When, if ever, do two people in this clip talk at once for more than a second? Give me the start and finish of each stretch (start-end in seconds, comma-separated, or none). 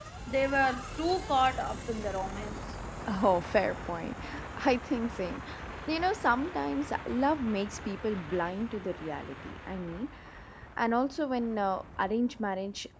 none